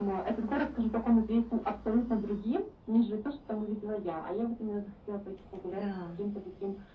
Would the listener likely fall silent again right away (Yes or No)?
Yes